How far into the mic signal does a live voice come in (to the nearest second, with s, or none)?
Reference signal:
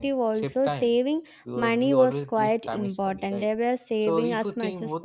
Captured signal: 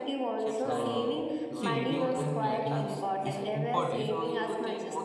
1 s